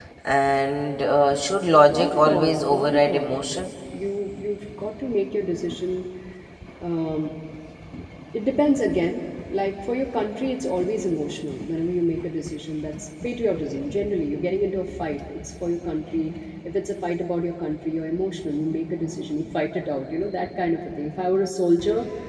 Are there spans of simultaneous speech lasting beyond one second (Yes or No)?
Yes